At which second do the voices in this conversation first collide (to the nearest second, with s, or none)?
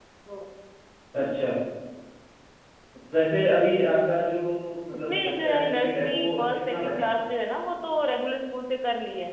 5 s